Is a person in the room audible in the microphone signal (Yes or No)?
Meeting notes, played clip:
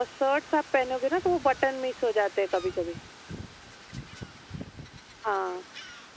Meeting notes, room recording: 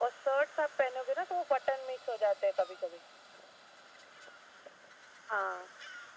No